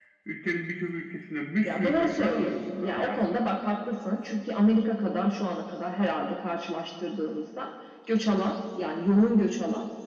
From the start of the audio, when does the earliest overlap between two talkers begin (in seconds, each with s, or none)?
1.6 s